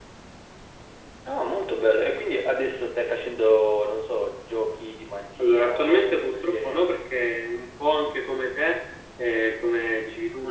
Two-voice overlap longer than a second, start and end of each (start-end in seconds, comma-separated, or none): 5.4-6.8